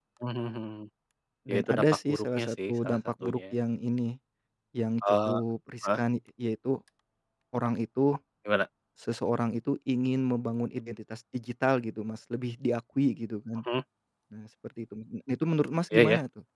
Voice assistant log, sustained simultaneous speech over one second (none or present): present